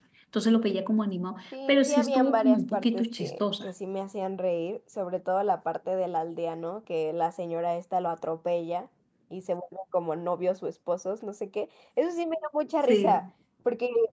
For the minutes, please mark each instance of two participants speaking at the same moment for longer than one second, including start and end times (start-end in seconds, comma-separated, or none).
1.7-3.7